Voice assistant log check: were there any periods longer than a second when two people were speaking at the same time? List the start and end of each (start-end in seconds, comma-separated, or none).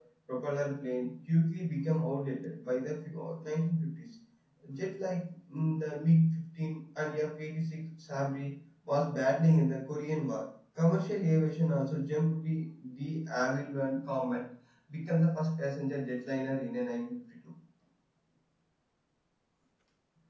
none